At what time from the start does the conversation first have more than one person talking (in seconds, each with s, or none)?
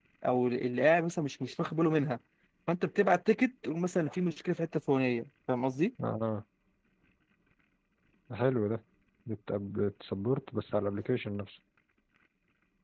none